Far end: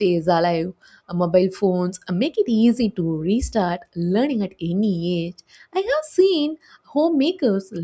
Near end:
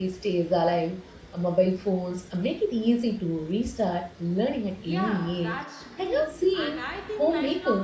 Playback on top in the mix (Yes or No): Yes